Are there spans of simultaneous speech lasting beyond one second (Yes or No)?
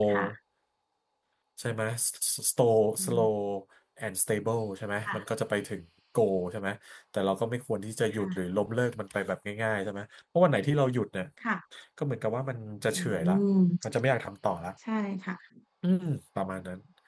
No